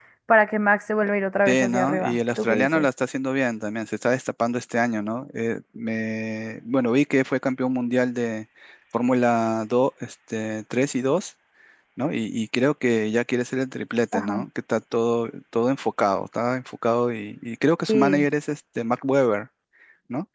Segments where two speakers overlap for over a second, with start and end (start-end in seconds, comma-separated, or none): 1.5-2.9